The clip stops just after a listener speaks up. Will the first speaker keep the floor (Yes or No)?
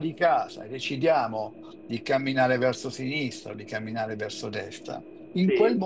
Yes